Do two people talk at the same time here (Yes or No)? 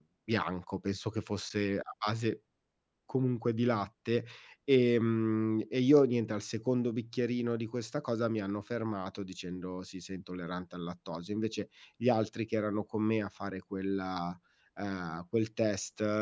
No